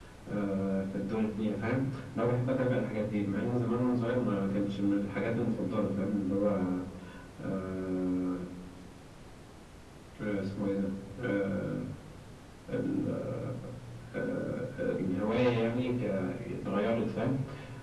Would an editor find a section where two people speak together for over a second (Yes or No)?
No